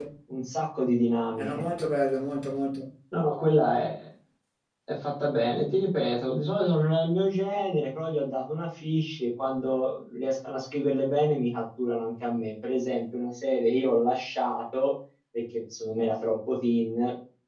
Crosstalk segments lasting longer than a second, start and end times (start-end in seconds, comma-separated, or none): none